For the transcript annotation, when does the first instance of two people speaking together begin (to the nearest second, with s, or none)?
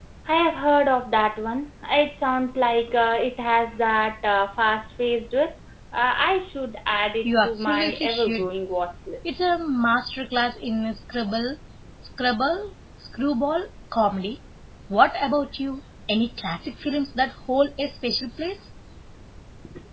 7 s